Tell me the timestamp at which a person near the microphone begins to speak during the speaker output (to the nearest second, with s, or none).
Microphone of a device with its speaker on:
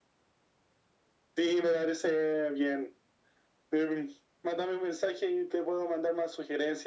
none